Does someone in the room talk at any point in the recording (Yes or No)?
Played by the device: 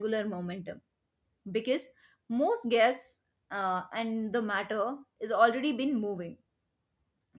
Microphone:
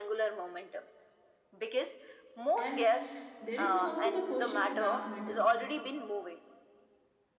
Yes